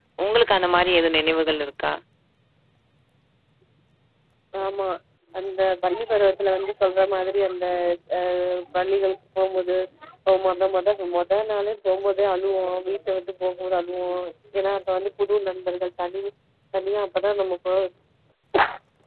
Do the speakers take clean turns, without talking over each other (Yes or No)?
Yes